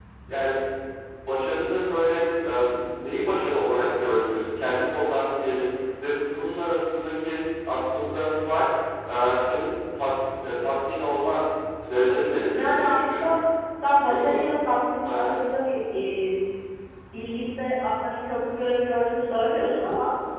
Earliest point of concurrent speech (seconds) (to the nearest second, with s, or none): 12 s